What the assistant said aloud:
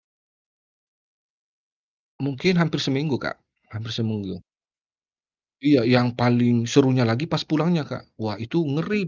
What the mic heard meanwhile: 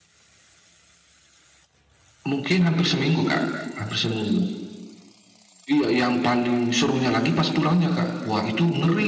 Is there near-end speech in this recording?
No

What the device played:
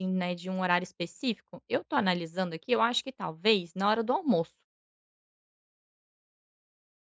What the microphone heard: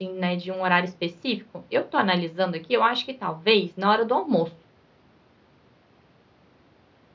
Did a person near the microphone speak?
No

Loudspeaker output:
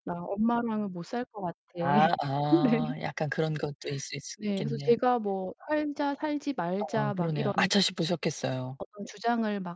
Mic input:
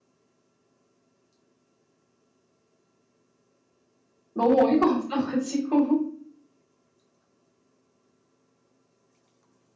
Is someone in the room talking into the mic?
Yes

